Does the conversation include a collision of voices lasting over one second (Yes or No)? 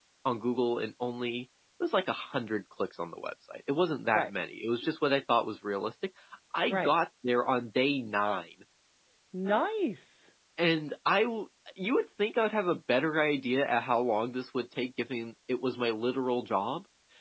No